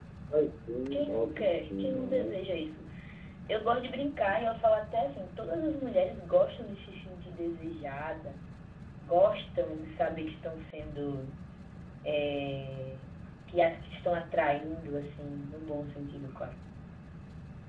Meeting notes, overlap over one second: present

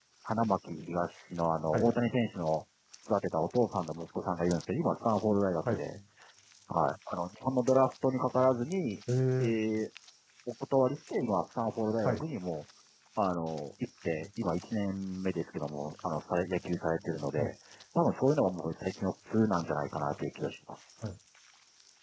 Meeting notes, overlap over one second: none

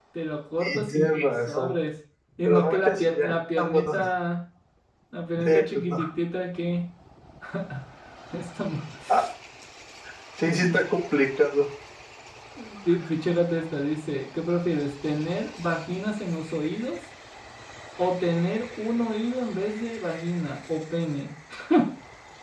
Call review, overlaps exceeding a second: present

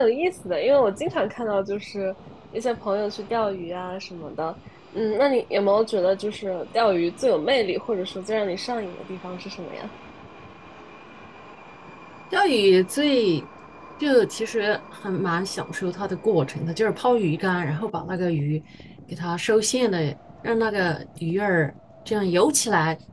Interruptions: none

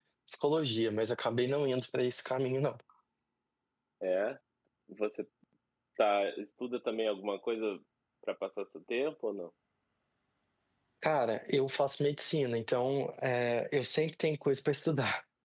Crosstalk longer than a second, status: none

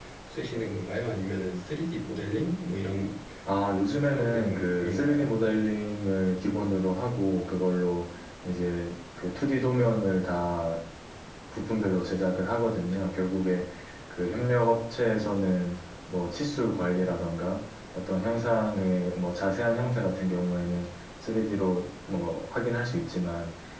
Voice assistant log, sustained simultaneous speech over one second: present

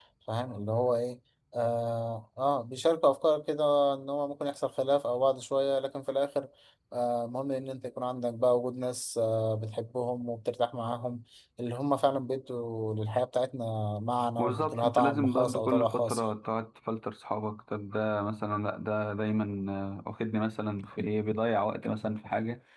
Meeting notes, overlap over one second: present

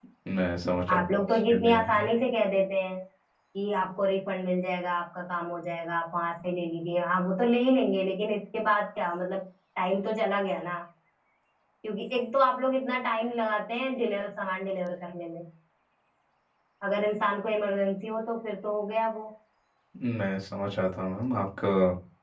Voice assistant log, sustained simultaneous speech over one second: present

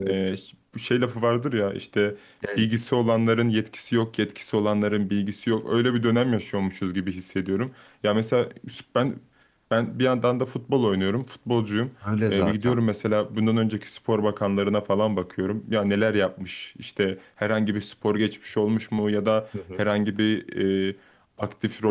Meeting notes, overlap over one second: none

